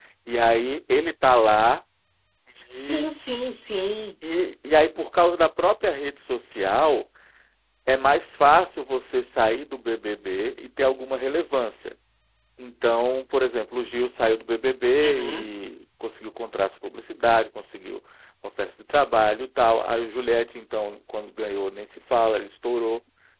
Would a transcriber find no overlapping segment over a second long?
Yes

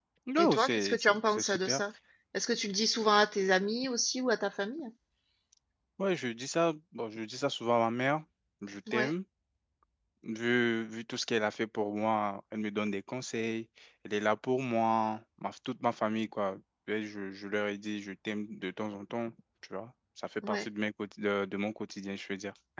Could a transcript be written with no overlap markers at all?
No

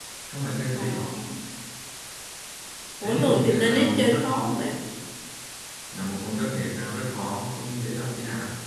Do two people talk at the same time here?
Yes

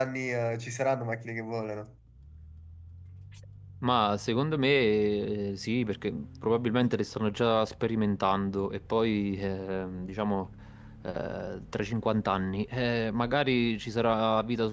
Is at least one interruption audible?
No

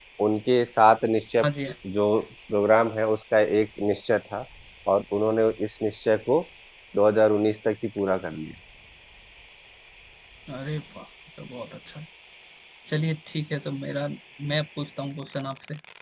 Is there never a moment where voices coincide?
Yes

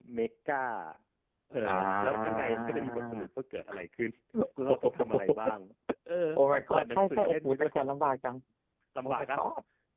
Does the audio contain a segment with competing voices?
Yes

